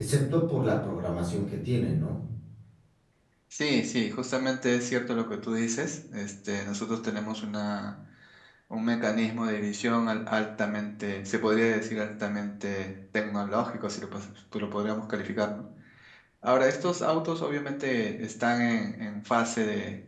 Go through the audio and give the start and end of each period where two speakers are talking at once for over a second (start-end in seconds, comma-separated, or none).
none